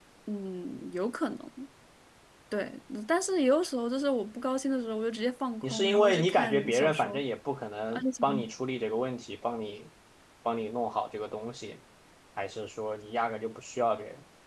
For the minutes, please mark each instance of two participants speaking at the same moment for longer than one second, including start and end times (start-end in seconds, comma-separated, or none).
5.6-7.2